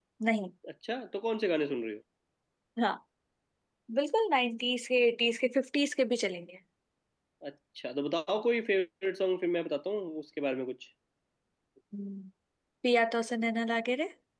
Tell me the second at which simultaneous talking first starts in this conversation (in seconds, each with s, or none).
none